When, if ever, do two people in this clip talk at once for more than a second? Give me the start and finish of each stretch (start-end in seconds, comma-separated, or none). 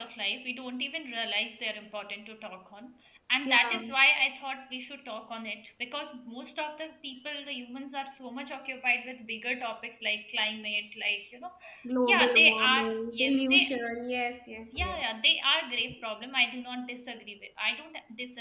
12.0-13.7